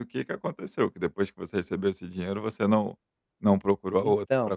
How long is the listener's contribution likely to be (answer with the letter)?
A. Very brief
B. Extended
B